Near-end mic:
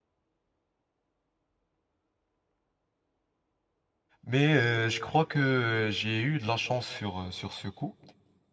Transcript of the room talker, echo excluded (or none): Mais euh, je crois que j'ai eu de la chance sur, euh, sur ce coup.